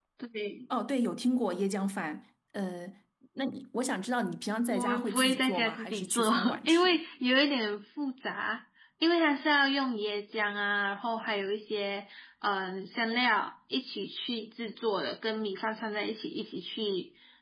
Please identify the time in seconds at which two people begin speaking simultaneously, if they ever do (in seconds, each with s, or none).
4.7 s